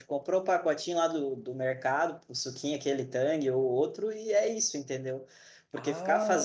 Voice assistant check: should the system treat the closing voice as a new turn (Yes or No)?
No